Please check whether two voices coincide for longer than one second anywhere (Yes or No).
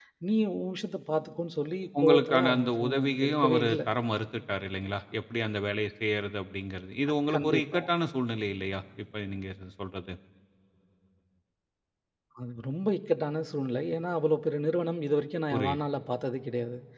Yes